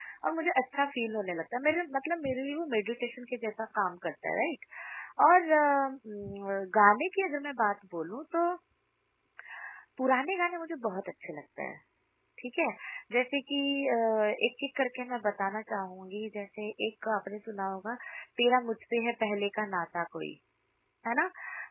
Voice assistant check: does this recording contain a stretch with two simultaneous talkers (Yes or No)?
No